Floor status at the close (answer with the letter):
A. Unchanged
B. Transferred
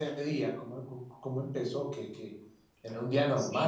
B